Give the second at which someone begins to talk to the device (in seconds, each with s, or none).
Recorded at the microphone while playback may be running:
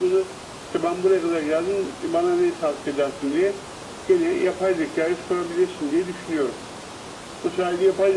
none